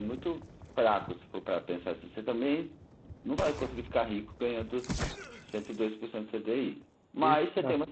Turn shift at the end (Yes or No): No